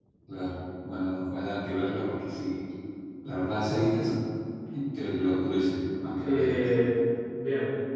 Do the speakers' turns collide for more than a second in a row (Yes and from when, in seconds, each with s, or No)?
No